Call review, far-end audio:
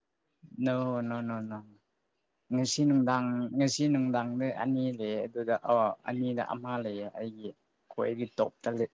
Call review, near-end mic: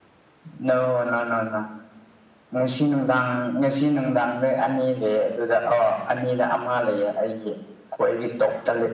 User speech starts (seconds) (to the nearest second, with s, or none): none